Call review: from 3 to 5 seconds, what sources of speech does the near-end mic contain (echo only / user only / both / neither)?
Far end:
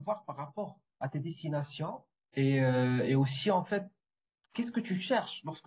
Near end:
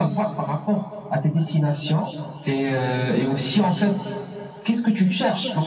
echo only